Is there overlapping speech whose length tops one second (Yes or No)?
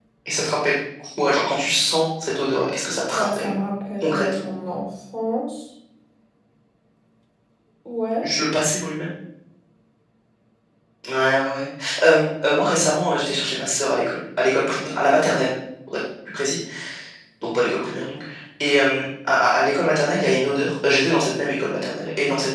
No